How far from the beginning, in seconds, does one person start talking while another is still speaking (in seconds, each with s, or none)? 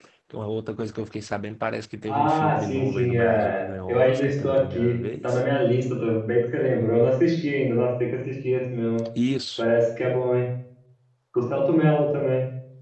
2.1 s